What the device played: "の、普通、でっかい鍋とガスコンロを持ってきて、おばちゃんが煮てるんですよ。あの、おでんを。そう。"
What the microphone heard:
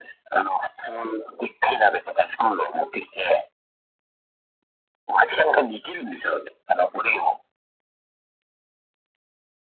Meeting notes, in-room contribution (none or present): none